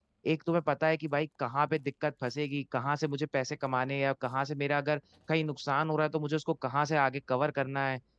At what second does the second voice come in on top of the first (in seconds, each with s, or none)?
none